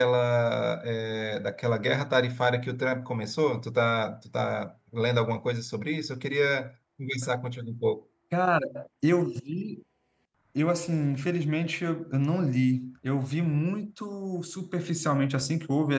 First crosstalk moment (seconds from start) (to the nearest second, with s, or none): none